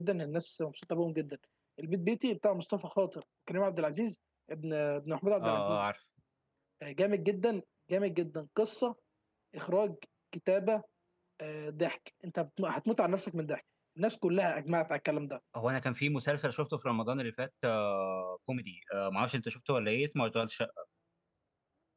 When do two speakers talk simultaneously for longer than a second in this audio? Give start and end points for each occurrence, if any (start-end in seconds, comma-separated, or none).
none